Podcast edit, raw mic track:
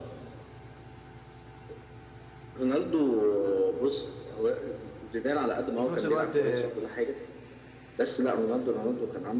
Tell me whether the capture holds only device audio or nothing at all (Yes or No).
No